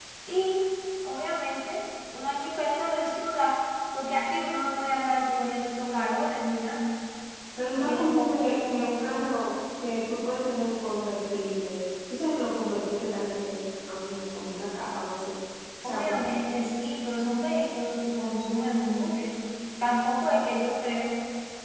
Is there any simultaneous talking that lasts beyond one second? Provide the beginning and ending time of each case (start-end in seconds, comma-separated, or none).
7.8-9.2